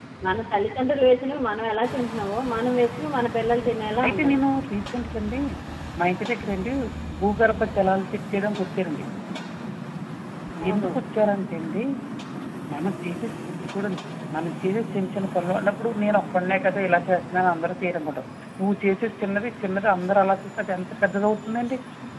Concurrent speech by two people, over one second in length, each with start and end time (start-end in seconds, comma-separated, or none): none